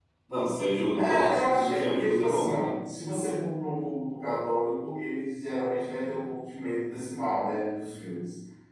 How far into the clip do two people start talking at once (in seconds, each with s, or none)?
1.0 s